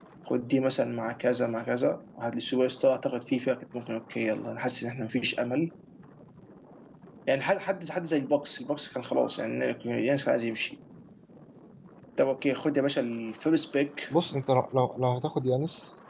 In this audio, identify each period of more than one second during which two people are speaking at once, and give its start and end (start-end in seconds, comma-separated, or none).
none